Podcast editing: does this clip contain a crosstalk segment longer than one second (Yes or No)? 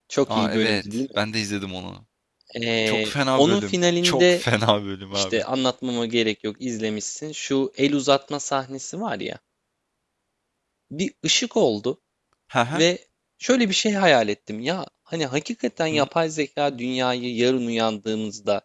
Yes